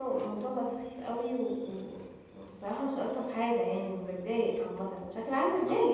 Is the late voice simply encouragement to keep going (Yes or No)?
No